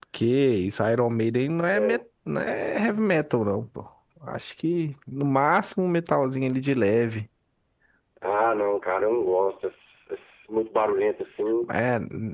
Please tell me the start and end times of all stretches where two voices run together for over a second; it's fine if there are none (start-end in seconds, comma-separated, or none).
none